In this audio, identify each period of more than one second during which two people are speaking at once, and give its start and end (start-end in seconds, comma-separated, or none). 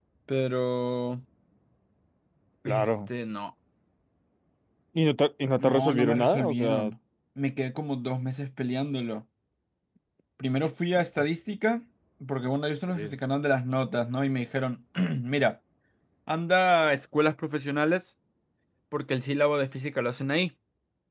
5.6-6.9